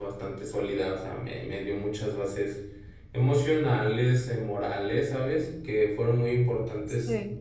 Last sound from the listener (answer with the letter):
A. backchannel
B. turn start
A